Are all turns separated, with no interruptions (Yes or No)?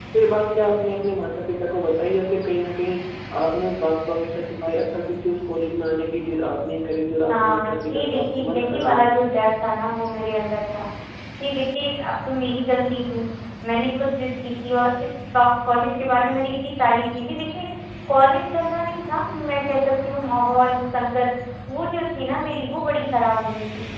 No